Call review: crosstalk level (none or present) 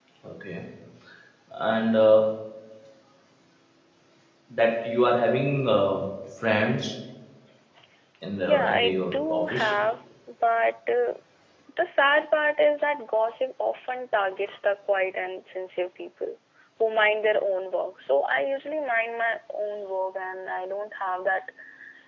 present